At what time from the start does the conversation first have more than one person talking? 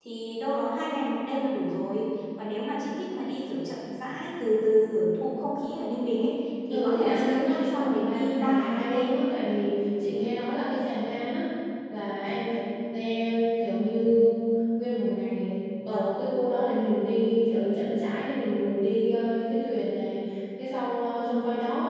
7 s

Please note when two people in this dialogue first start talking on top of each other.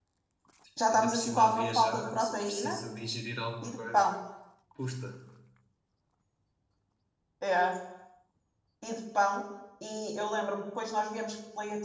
1 s

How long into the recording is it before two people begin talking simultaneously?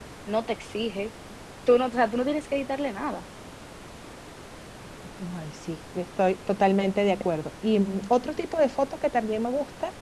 none

